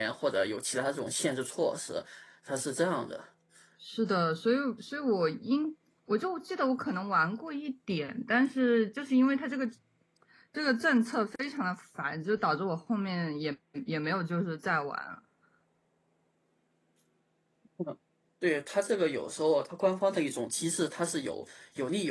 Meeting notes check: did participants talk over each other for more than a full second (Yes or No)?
No